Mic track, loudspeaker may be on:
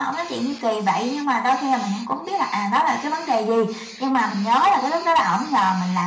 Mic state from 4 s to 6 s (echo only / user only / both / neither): echo only